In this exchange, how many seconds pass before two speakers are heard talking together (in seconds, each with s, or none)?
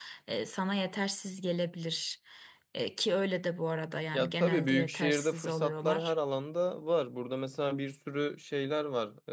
4.1 s